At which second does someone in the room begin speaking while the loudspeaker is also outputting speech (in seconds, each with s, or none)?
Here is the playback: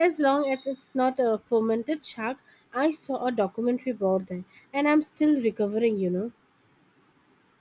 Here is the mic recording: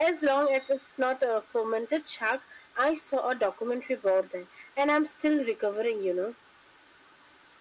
none